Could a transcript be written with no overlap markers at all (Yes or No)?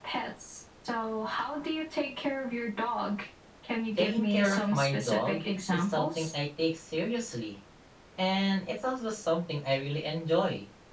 No